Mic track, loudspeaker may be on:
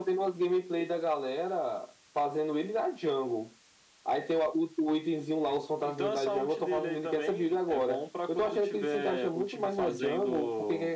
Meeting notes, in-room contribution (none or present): none